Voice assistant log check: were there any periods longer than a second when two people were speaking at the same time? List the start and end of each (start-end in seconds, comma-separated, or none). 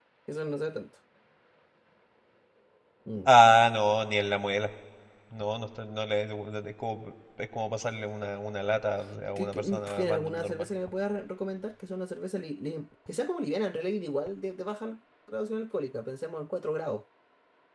9.4-10.7